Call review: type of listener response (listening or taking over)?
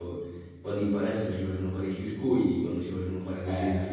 listening